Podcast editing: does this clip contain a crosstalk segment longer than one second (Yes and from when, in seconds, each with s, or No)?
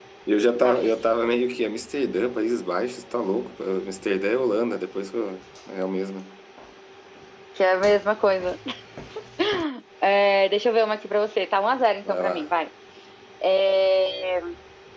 No